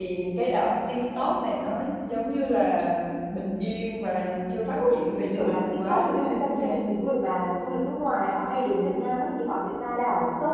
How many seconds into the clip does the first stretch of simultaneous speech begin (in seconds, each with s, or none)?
4.8 s